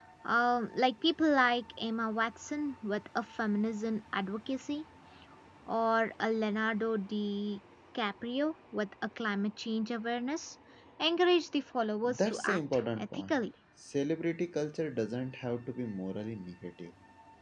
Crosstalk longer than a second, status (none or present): present